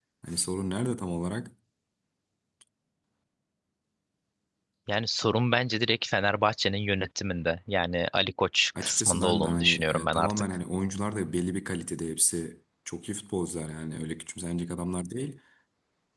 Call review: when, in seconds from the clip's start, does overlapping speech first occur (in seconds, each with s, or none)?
8.8 s